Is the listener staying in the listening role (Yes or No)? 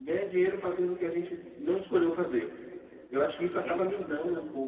Yes